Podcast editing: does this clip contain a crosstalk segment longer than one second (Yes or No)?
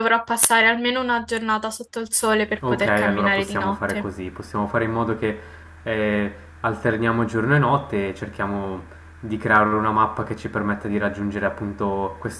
Yes